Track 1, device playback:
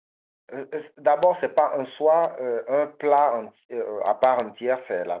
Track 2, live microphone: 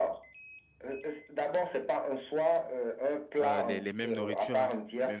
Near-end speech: present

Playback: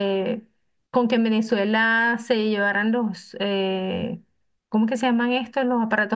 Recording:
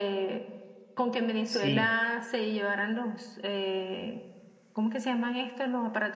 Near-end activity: present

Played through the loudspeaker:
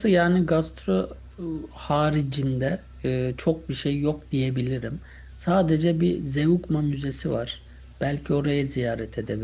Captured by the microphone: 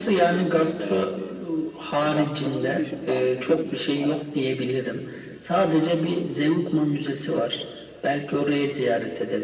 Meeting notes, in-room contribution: present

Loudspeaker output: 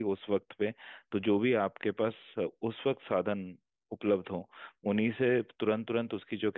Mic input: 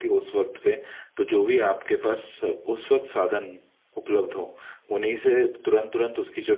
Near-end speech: none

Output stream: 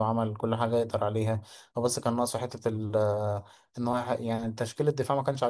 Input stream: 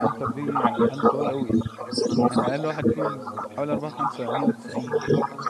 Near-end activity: present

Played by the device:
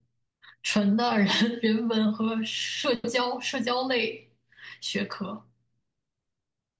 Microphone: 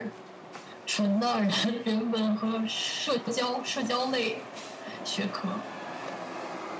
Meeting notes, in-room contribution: none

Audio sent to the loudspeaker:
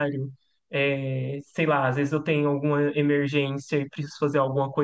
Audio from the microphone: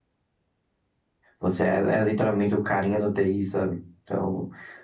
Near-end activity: present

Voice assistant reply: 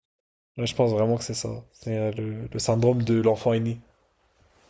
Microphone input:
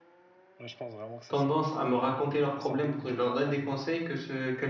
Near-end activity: present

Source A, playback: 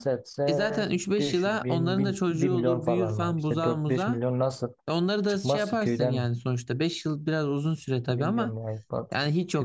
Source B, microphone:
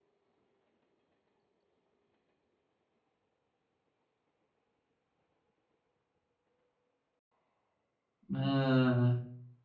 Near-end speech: present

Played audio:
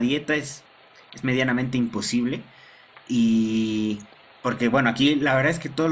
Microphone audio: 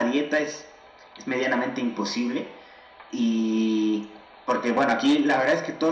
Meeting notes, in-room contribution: none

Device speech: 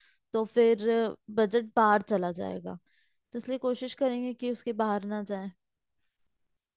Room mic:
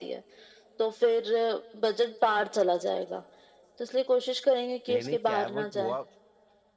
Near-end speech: present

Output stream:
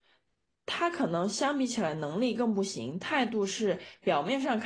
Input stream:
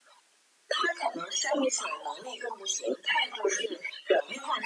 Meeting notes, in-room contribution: none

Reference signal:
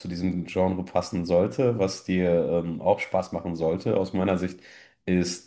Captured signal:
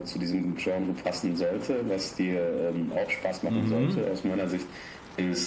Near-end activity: present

